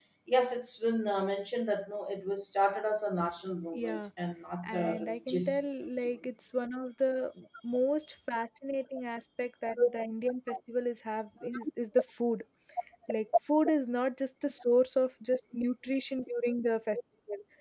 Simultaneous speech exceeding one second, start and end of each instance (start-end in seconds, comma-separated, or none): 4.7-6.1